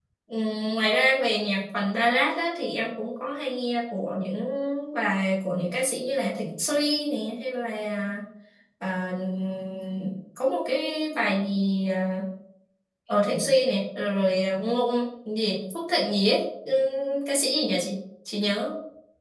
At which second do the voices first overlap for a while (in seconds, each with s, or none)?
none